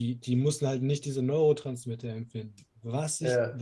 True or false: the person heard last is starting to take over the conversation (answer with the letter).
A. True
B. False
B